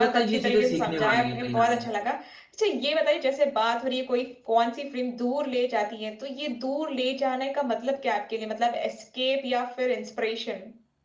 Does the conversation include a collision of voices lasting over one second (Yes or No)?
Yes